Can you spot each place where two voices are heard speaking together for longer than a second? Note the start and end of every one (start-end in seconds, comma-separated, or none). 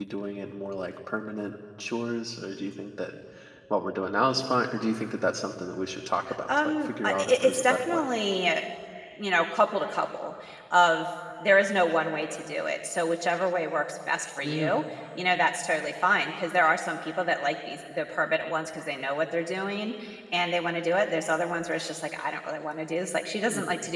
6.5-8.0